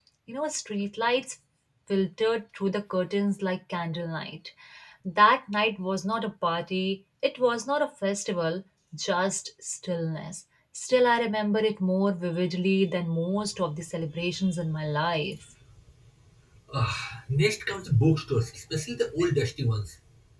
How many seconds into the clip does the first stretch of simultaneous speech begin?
none

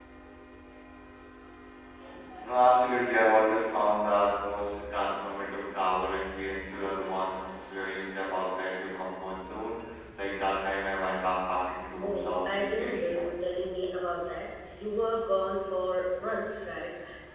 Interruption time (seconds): 11.8 s

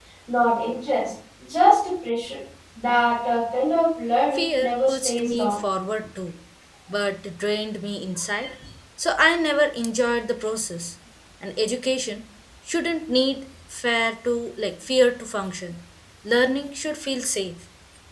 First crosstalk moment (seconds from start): 4.3 s

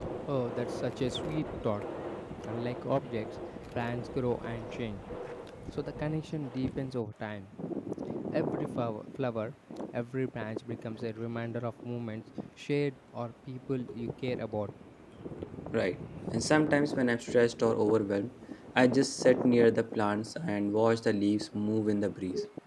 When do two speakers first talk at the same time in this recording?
none

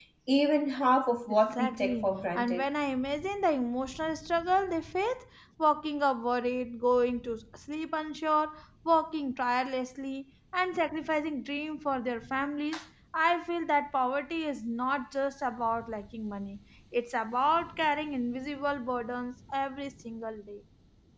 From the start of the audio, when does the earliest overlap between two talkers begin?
1.3 s

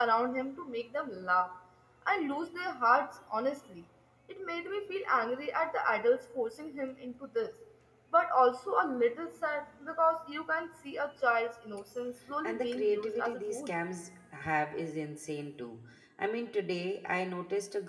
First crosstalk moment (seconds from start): 12.4 s

